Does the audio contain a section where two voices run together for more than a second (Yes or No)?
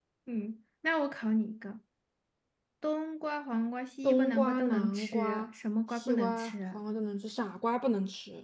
Yes